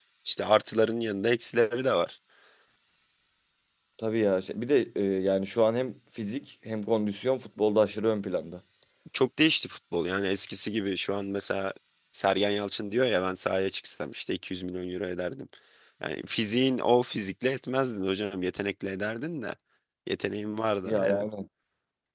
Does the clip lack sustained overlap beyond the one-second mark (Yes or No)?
Yes